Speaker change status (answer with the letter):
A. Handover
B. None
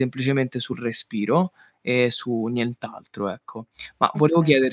B